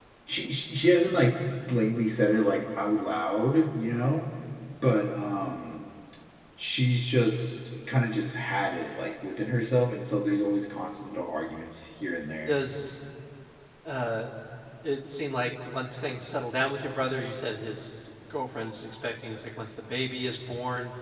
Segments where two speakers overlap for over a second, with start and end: none

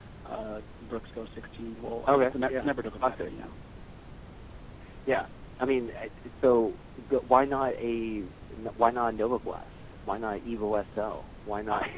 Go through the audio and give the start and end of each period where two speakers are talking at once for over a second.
2.1-3.3

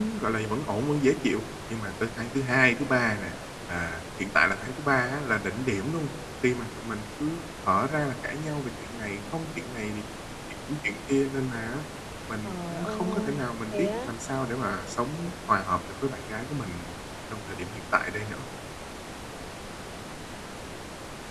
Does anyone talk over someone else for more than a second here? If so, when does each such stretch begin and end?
12.4-14.1

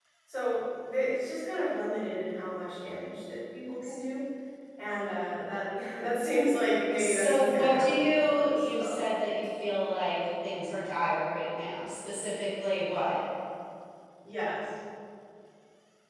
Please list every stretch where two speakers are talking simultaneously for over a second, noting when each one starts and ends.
7.0-9.0

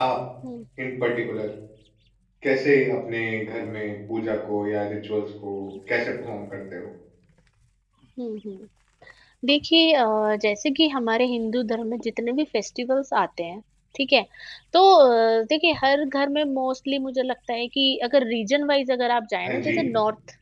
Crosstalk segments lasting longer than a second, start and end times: none

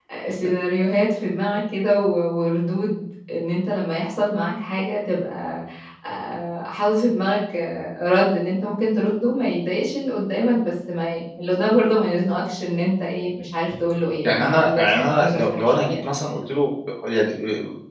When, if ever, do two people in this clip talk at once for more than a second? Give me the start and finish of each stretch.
14.2-16.0

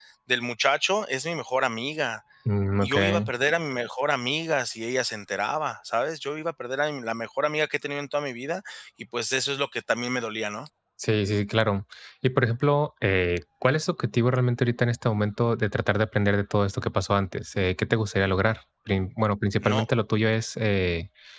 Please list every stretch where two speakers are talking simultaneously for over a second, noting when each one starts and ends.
none

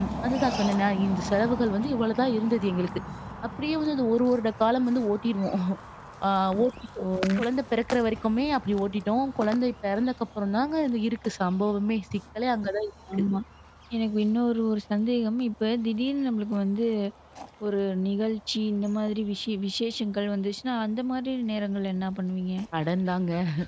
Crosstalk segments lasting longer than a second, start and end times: none

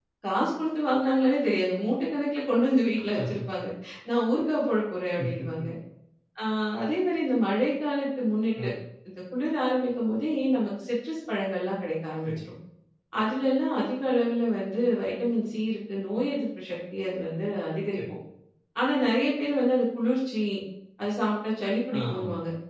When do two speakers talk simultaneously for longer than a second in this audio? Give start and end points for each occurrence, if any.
none

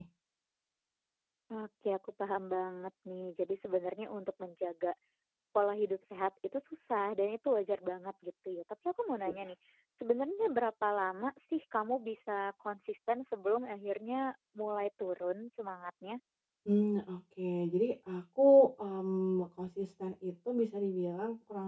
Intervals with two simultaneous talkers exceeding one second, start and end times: none

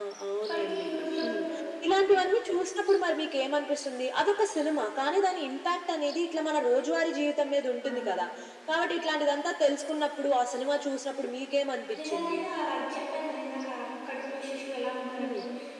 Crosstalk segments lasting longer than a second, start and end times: none

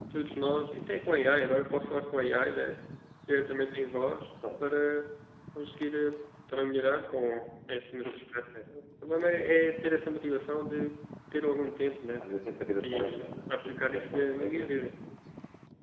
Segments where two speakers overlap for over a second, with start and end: 12.9-14.8

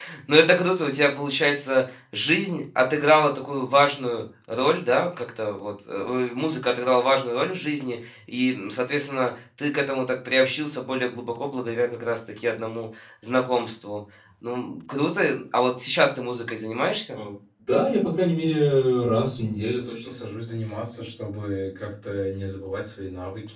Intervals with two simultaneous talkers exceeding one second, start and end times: none

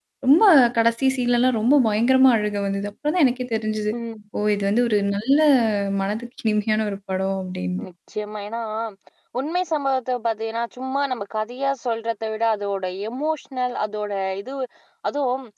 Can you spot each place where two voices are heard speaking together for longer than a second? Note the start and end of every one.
none

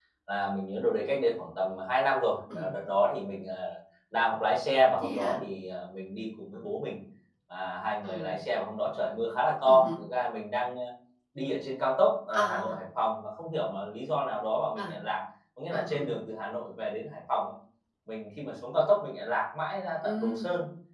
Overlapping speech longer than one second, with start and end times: none

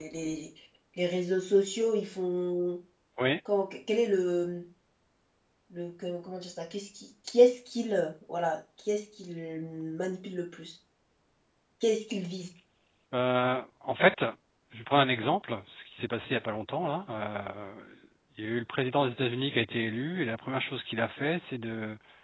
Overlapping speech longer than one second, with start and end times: none

